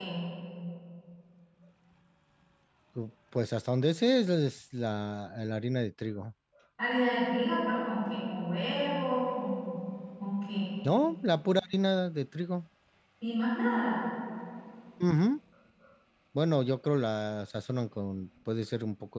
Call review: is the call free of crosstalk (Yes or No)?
Yes